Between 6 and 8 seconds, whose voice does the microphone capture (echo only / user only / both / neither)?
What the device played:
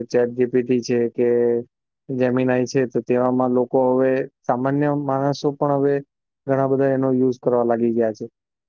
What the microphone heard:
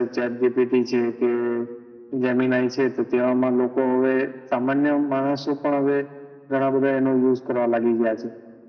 echo only